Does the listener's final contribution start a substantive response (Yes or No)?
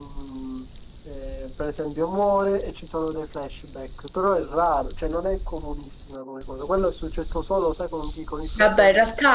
Yes